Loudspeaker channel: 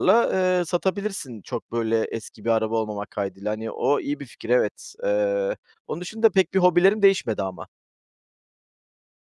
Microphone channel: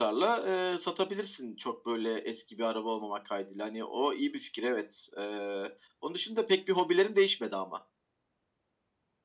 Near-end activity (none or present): none